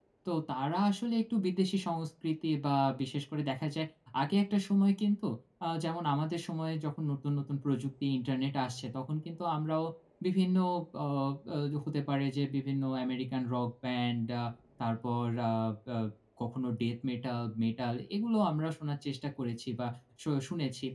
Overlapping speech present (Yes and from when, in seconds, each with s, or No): No